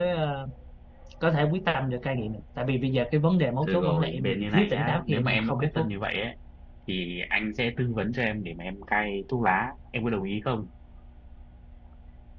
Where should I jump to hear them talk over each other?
3.6 s

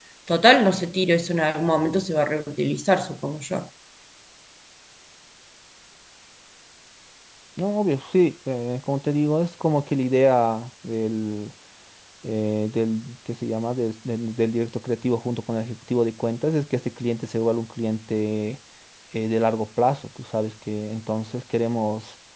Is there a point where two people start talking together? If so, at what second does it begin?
none

